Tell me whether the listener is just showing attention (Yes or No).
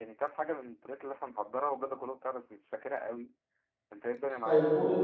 No